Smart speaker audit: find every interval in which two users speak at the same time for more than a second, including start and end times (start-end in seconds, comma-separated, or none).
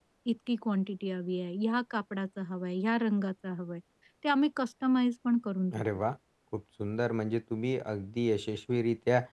none